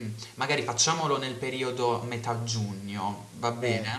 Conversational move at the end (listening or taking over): taking over